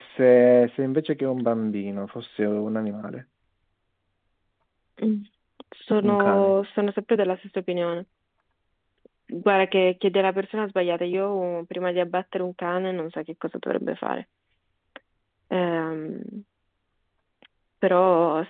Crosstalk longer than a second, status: none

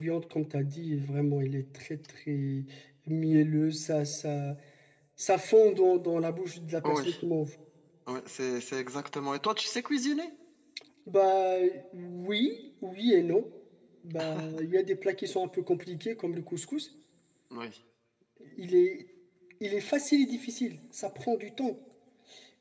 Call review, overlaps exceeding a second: none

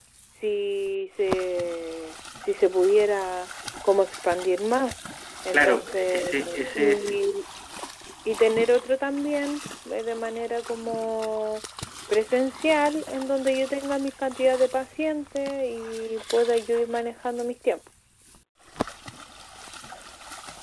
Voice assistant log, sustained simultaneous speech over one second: present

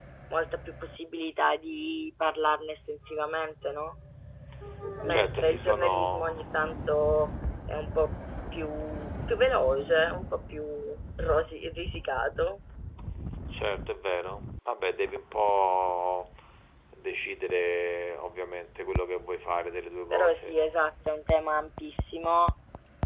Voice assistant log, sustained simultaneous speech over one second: present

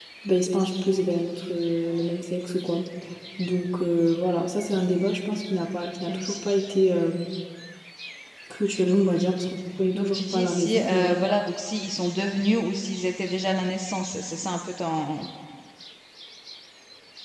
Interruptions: present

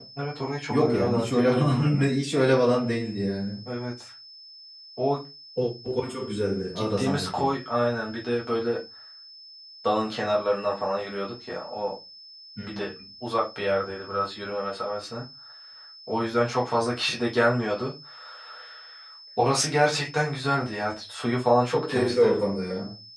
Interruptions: present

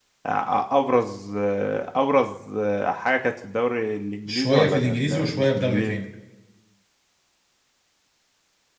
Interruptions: present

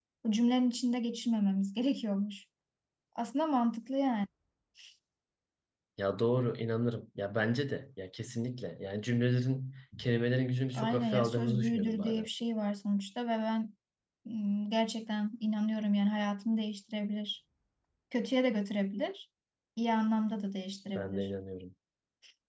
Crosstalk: present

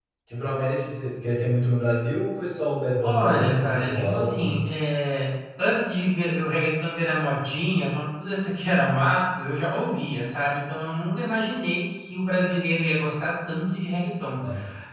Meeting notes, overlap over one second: present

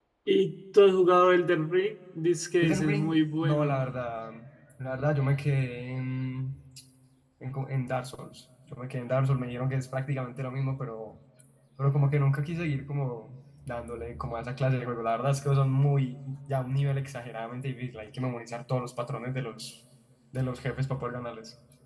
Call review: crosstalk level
present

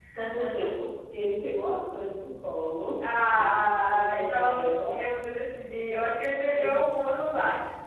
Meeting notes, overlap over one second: present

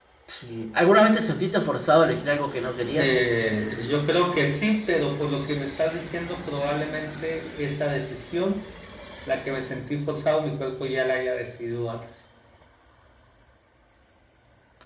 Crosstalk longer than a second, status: none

